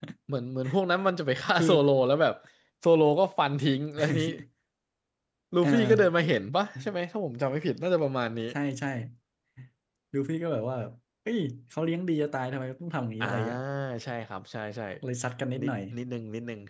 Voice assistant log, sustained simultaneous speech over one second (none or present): none